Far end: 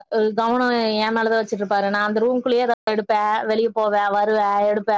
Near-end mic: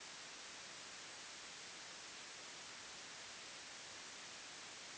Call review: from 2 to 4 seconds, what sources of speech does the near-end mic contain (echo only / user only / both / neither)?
neither